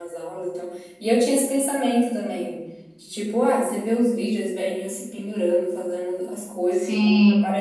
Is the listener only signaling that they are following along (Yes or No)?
Yes